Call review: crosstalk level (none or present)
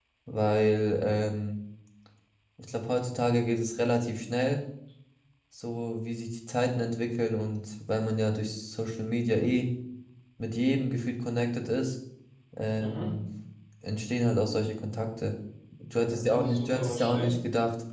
present